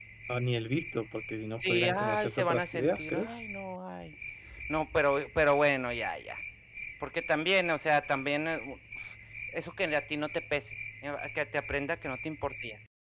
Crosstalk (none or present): present